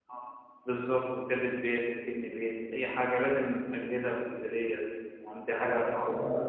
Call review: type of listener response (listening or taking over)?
taking over